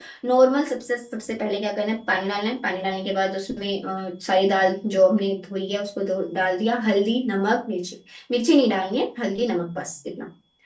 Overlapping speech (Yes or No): No